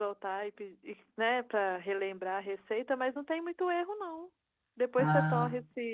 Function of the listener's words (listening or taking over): listening